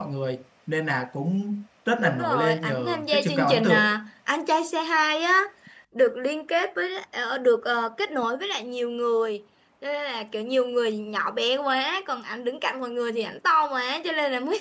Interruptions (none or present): present